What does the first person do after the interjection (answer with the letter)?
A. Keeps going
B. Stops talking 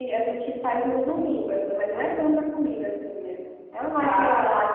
A